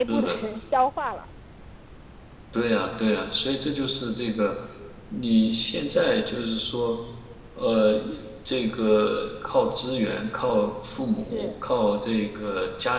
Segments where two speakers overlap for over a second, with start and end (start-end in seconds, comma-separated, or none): none